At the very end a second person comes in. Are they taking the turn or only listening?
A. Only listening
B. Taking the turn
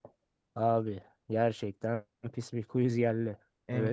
B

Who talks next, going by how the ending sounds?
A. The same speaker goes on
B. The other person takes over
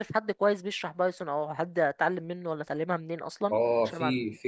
B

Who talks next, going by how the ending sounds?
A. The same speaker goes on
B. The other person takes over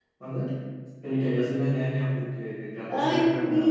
B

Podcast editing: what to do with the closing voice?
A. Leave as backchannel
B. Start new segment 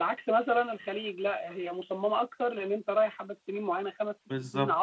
A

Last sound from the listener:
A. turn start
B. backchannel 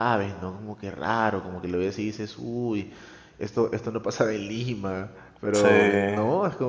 B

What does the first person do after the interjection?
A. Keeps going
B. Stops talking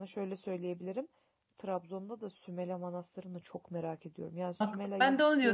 B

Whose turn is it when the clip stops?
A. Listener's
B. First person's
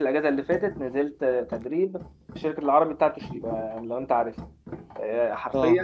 B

